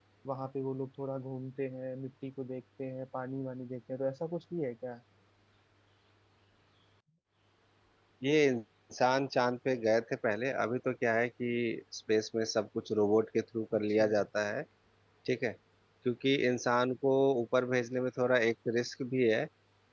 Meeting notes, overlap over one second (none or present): none